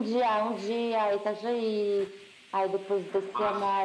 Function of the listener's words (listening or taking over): listening